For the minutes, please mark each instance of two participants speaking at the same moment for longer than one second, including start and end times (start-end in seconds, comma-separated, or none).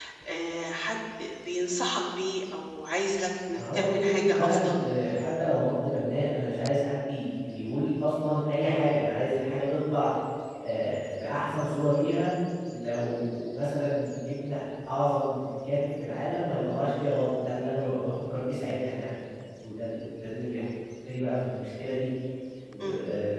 3.5-4.8